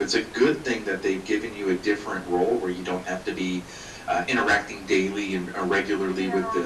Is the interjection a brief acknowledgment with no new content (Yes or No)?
Yes